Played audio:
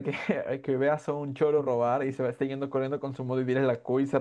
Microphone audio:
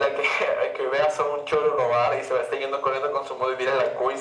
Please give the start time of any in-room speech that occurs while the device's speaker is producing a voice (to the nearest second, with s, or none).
none